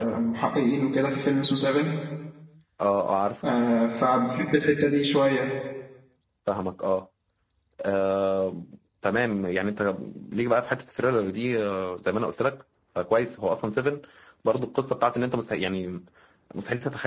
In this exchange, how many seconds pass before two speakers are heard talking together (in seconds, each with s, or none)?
none